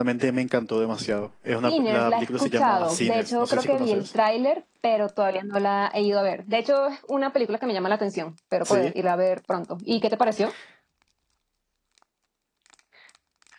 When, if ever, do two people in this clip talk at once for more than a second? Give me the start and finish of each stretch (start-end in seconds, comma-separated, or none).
1.6-4.0